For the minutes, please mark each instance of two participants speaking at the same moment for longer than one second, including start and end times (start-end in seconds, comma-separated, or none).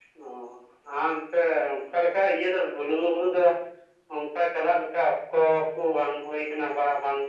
none